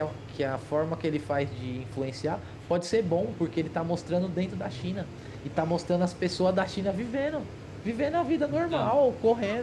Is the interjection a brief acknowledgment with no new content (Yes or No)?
Yes